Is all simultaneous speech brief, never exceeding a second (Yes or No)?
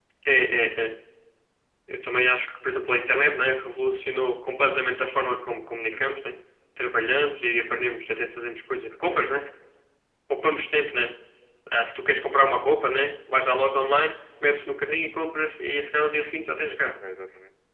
Yes